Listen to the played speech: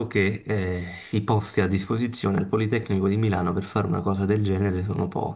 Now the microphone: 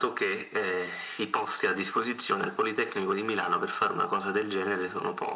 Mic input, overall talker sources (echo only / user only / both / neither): echo only